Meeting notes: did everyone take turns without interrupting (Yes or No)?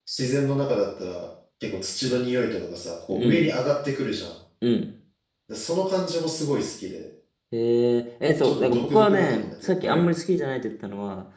No